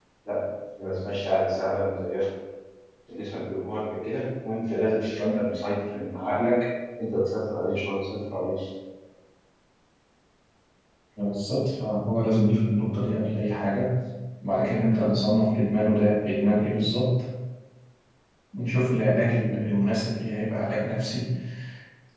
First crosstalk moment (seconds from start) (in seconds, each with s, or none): none